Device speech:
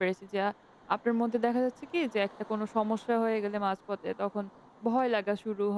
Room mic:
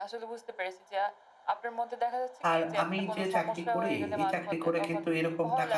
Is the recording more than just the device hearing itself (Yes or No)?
Yes